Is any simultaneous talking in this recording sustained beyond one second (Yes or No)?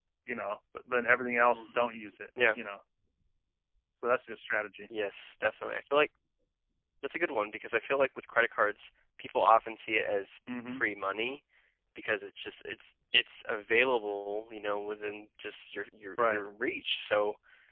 No